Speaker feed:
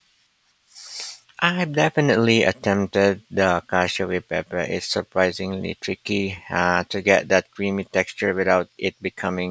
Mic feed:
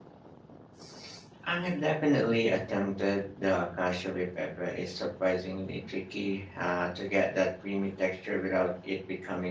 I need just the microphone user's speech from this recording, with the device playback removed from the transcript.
none

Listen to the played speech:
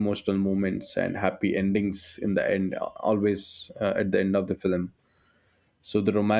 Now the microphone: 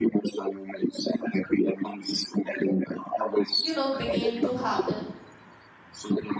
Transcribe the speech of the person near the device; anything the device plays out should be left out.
you know, began to happen

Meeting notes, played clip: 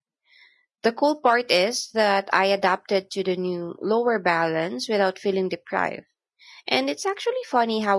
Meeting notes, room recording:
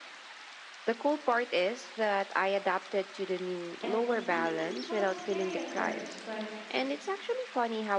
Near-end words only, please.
And freelancing felt scary at first, but

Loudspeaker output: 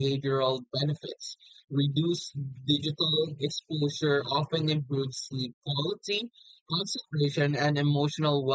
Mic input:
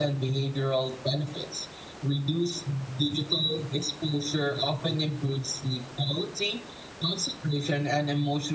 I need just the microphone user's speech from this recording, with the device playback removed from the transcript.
none

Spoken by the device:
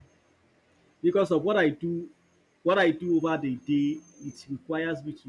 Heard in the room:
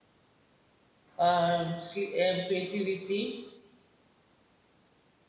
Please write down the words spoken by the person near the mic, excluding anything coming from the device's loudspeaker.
um, sleep, um, creativity,

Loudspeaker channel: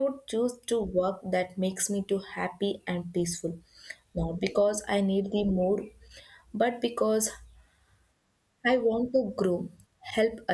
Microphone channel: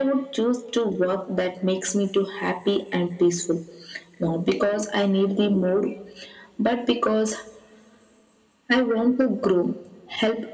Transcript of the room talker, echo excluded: none

